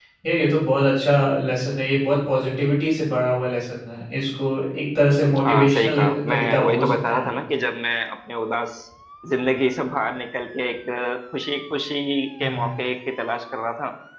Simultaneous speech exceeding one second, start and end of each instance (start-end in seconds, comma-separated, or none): 5.4-7.3